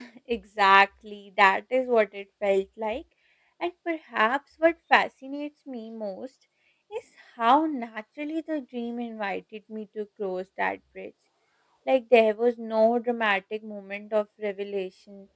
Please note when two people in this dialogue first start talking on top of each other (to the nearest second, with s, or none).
none